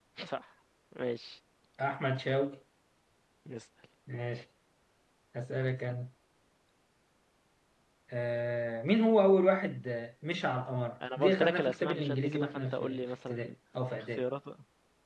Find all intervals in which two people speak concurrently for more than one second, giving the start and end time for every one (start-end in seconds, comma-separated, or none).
11.2-13.5